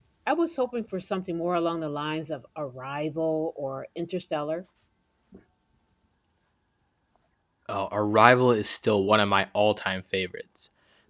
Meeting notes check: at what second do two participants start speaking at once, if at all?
none

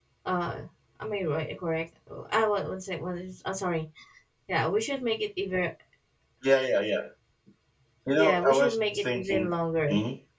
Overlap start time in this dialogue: 8.1 s

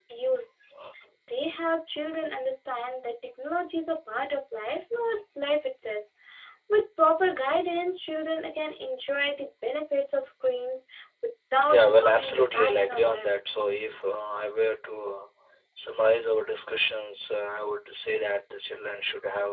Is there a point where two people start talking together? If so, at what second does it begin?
11.7 s

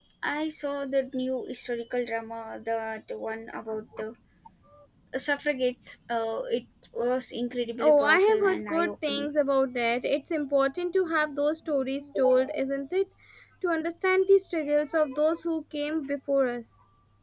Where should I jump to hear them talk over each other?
7.8 s

